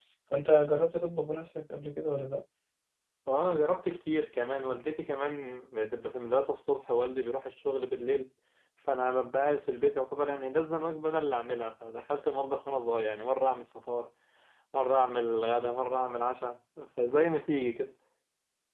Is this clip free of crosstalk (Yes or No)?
Yes